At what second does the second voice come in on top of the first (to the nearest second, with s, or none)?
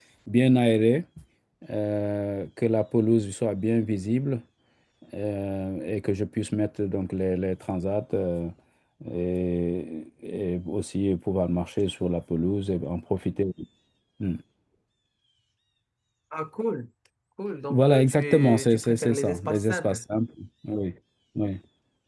18 s